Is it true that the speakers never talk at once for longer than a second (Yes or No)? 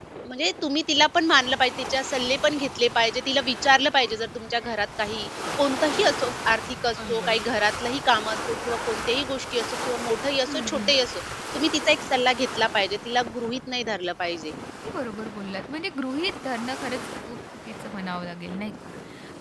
Yes